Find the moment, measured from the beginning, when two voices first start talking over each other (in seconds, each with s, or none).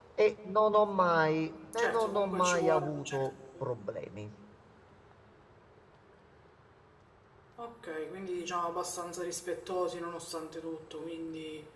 1.8 s